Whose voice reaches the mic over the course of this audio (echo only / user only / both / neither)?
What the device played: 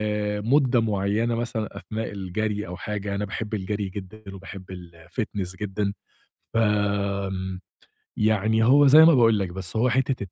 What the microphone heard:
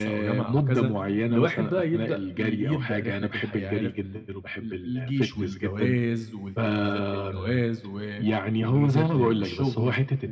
both